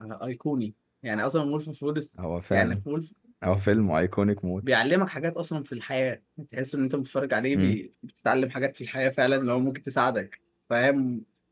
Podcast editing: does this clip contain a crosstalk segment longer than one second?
No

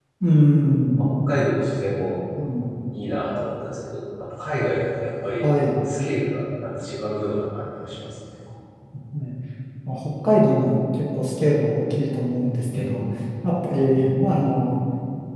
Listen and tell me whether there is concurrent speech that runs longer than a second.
No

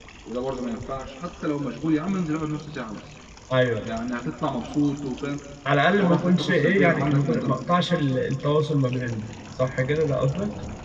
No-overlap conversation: No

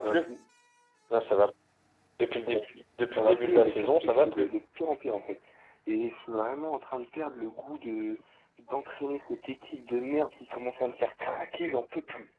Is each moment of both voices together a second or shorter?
No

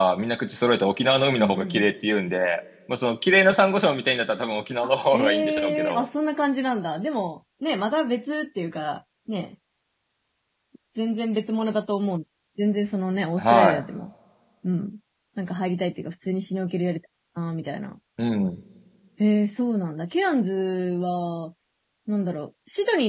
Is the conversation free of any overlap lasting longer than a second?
No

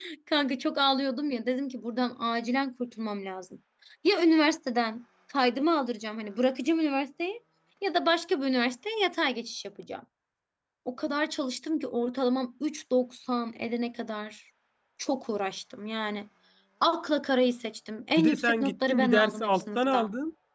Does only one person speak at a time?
No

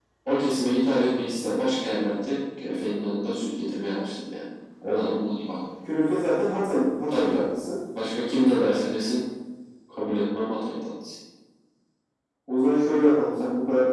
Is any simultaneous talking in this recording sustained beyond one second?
No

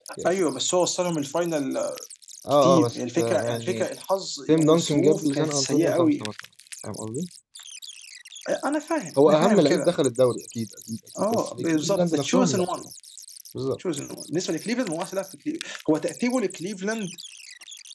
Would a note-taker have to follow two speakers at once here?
Yes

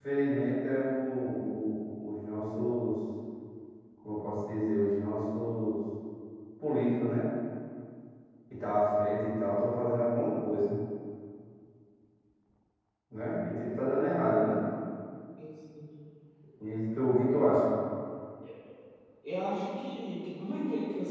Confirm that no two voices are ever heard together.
Yes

